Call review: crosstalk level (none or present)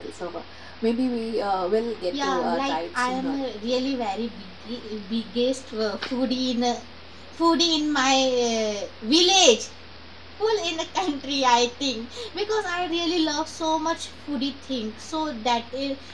present